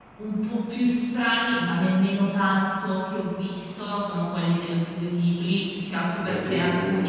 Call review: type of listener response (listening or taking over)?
listening